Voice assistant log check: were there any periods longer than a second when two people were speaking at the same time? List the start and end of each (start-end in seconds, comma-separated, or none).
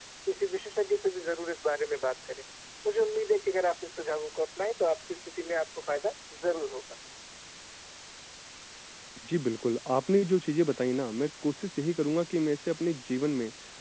none